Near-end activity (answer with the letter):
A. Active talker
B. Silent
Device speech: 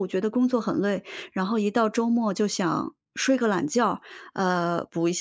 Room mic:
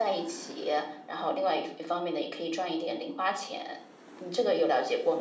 A